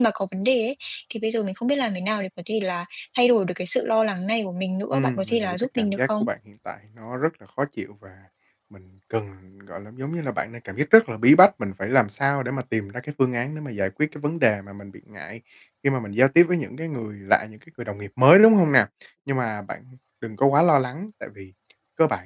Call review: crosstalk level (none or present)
present